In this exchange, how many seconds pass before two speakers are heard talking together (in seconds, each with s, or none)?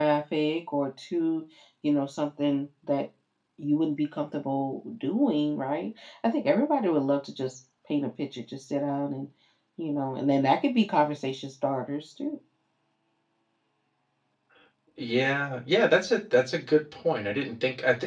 none